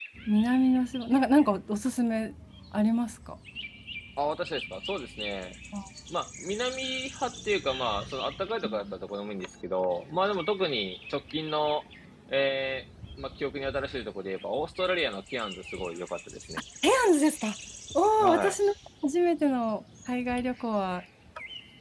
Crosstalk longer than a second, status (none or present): none